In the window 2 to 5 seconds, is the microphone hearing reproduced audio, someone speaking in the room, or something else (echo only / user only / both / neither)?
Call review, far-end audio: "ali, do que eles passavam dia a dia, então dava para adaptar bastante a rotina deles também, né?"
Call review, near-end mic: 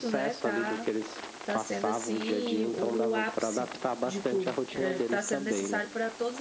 both